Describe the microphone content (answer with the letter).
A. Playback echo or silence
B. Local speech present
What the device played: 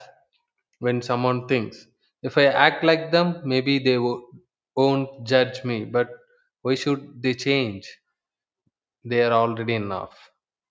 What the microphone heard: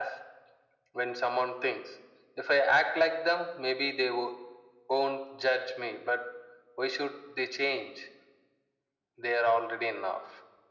A